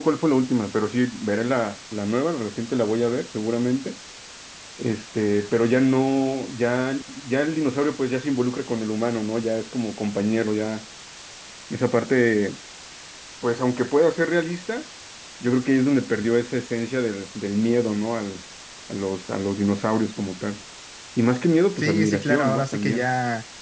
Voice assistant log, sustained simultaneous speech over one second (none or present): present